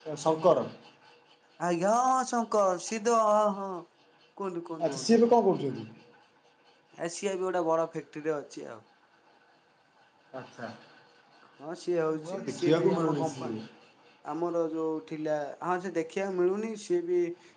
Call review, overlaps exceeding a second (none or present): present